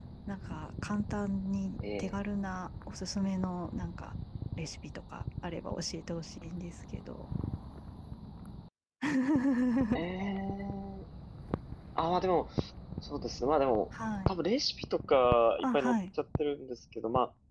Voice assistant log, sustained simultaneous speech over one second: none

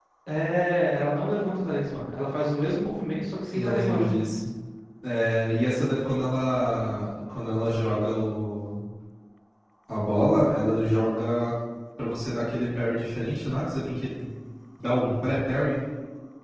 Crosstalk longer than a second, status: none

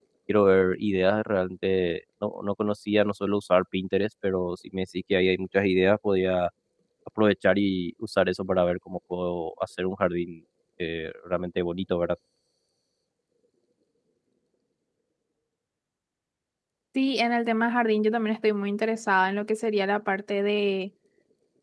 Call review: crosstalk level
none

